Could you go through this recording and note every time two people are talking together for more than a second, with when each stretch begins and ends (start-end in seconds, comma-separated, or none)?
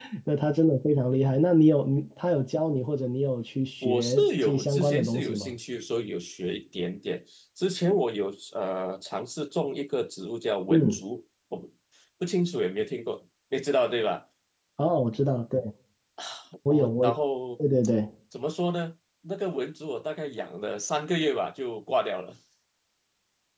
3.8-5.5